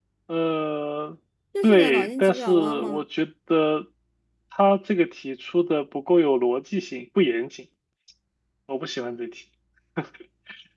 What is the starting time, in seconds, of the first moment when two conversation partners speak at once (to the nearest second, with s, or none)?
2 s